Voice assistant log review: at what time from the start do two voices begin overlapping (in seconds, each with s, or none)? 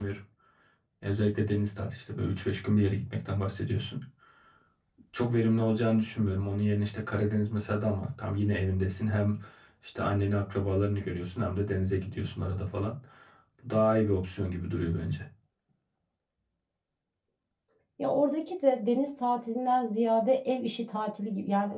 none